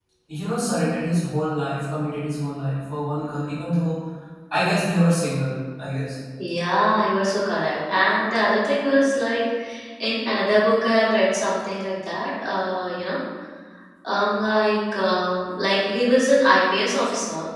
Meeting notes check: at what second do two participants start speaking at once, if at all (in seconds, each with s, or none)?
none